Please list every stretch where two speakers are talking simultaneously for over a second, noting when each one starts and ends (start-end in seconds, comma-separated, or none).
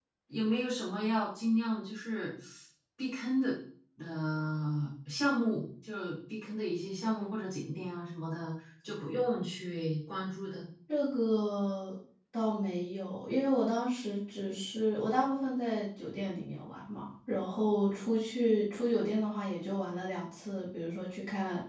none